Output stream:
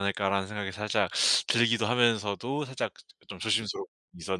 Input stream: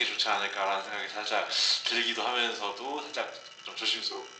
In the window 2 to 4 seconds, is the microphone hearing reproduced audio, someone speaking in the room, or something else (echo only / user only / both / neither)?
echo only